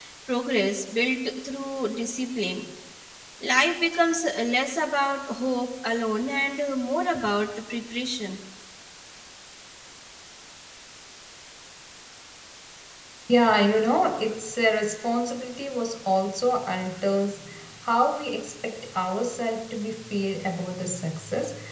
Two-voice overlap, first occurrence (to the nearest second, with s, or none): none